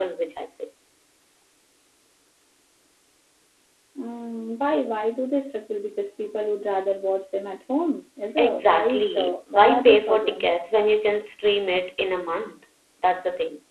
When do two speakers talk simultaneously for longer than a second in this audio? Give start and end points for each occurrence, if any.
8.4-10.5

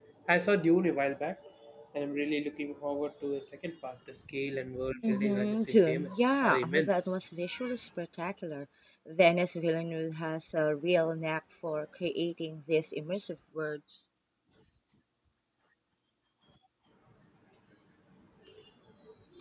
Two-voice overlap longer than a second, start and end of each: 5.1-7.1

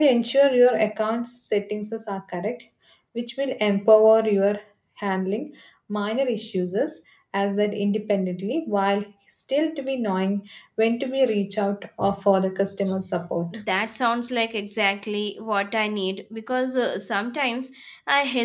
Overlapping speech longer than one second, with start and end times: none

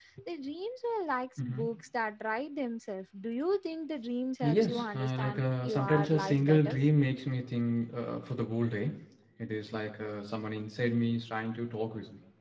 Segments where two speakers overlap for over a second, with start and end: 4.4-6.8

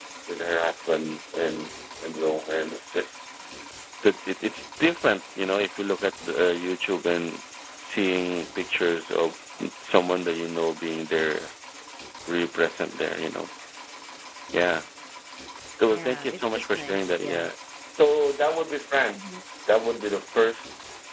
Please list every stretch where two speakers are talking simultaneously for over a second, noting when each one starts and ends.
15.9-17.5

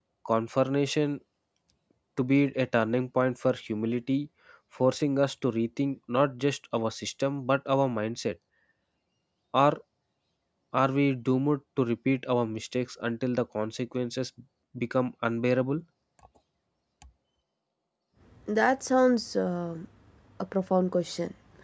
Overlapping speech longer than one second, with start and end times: none

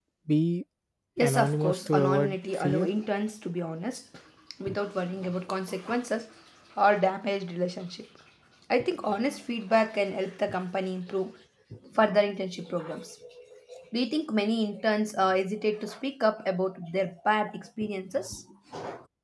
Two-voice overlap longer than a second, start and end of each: 1.2-2.9

